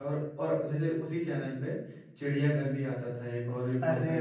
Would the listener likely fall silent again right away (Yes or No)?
No